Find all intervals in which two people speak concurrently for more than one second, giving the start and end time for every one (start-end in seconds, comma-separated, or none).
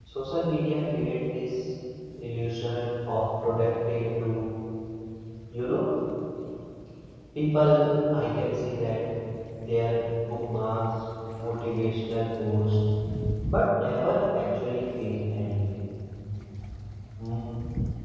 none